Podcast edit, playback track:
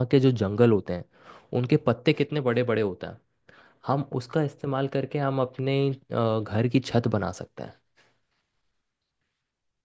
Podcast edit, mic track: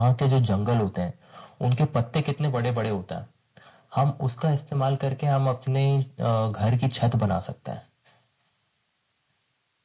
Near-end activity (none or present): none